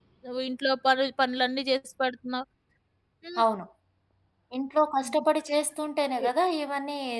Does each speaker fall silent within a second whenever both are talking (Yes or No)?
Yes